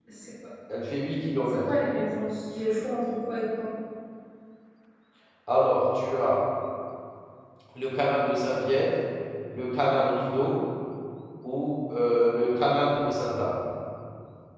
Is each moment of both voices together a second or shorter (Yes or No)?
Yes